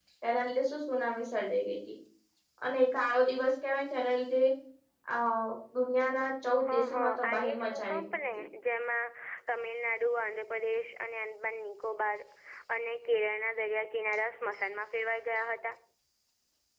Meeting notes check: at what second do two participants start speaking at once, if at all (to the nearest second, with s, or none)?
7 s